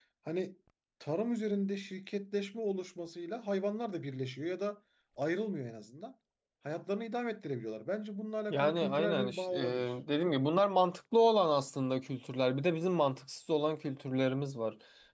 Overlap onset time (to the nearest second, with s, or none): 9 s